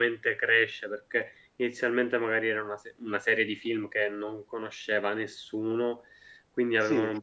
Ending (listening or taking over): listening